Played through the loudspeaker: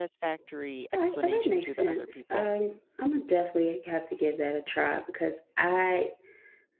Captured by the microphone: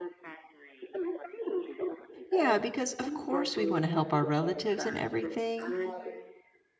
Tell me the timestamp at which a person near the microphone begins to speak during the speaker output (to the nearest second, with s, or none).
2 s